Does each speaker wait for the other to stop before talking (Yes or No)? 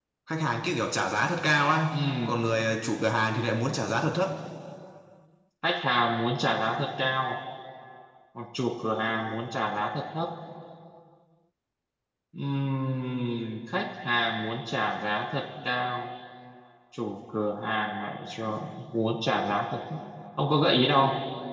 Yes